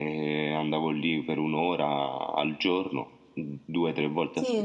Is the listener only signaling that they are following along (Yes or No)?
No